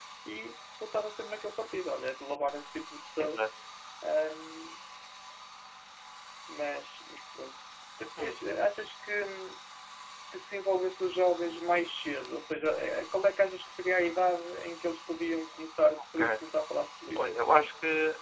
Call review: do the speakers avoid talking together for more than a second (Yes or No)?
Yes